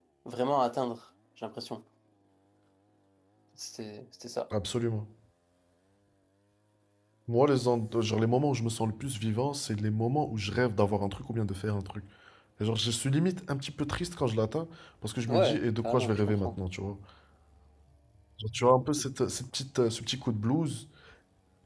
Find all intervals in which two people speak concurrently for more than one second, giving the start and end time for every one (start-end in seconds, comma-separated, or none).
15.3-16.5